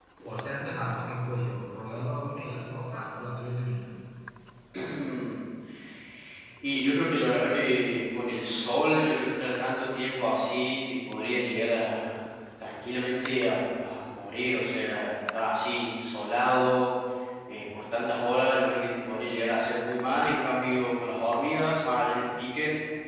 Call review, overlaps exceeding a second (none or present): none